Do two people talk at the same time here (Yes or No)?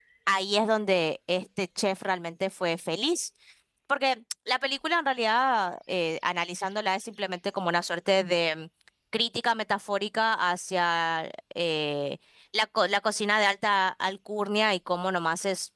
No